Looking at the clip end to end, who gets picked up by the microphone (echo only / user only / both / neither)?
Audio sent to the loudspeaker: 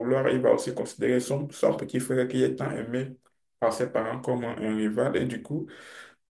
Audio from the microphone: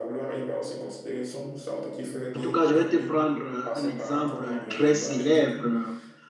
both